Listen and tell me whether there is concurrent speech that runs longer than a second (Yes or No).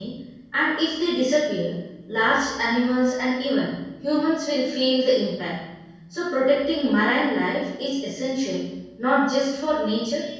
No